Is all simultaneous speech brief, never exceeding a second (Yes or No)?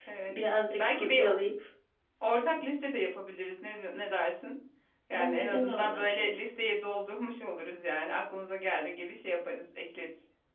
No